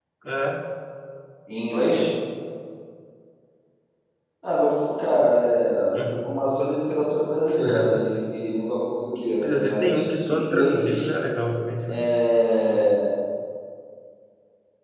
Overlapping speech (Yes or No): Yes